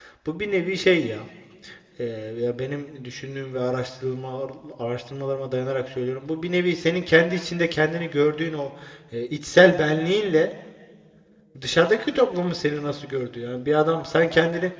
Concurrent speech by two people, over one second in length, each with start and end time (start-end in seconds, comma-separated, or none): none